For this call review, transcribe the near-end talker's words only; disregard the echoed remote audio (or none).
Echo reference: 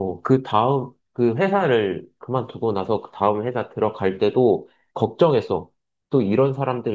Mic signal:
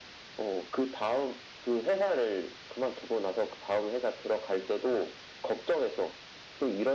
none